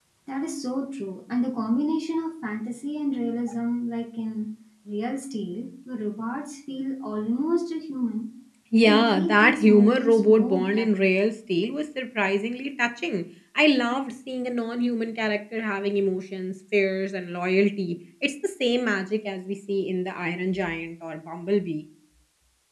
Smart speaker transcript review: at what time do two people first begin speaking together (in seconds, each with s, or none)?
8.8 s